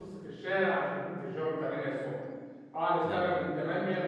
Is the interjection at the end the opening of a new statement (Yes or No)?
No